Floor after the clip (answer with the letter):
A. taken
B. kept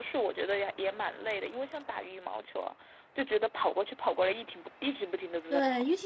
A